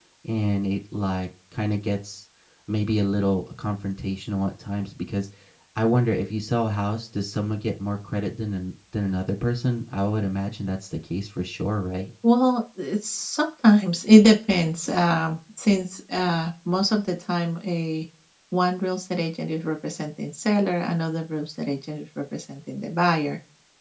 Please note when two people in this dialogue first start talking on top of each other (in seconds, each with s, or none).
none